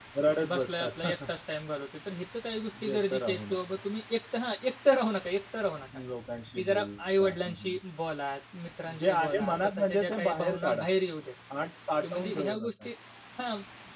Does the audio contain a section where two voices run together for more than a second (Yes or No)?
Yes